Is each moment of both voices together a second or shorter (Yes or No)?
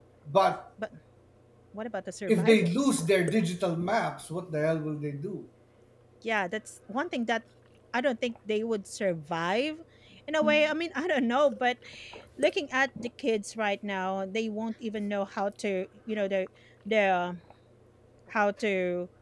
Yes